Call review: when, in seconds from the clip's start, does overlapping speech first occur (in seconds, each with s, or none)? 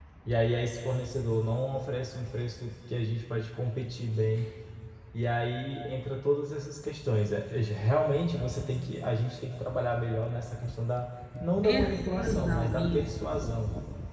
11.6 s